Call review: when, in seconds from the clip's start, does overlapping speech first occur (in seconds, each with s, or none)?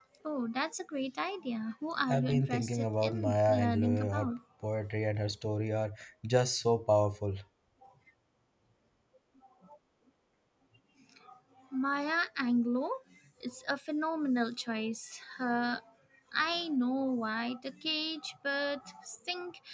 2.1 s